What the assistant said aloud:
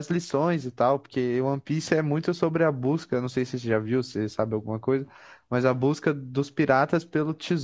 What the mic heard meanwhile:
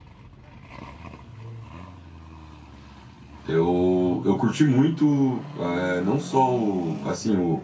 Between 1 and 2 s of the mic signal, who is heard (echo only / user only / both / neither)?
neither